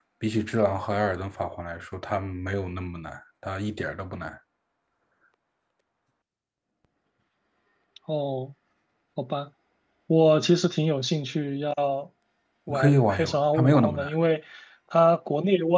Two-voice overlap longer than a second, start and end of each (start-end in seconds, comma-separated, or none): 12.7-14.1